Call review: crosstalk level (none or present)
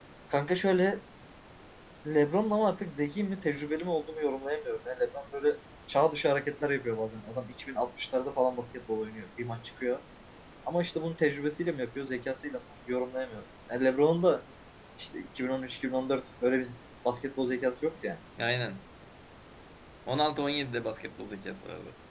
none